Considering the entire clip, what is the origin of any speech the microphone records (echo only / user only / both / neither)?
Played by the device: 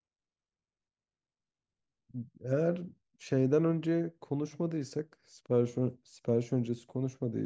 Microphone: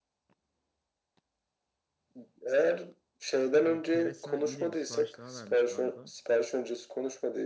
both